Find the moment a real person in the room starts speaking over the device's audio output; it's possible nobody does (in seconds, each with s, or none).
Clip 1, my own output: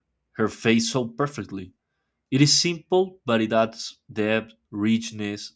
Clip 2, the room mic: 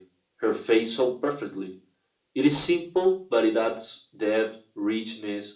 none